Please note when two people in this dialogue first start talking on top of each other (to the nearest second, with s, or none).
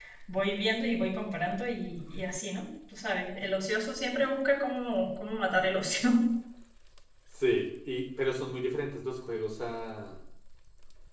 none